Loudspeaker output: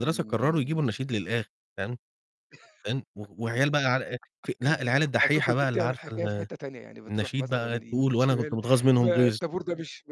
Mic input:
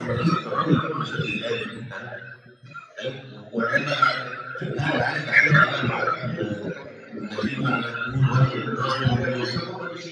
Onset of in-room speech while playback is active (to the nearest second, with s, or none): none